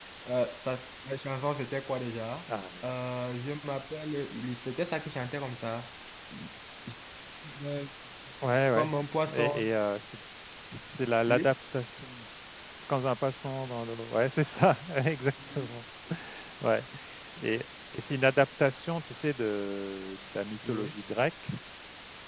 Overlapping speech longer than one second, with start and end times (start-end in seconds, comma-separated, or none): none